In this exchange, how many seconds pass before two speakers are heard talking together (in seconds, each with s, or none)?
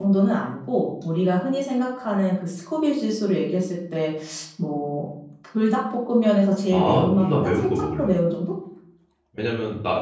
6.7 s